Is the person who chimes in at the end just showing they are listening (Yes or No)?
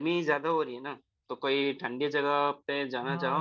No